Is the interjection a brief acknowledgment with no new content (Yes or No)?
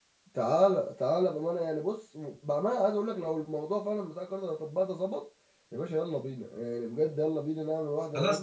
No